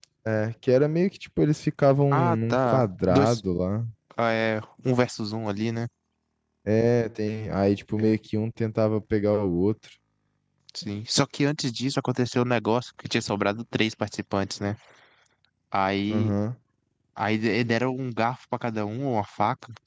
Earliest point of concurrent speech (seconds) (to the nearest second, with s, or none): 2 s